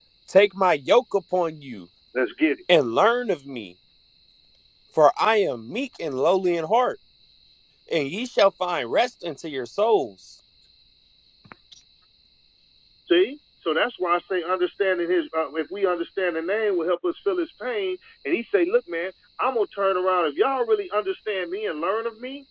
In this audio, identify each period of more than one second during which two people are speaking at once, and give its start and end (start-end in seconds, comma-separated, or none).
none